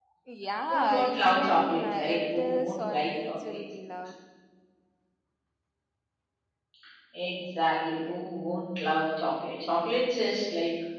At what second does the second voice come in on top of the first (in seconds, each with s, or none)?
0.7 s